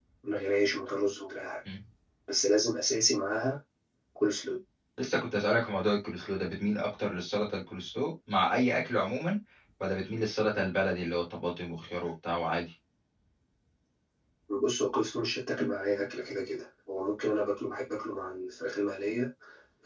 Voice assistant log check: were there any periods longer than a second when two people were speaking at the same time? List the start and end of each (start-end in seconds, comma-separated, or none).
none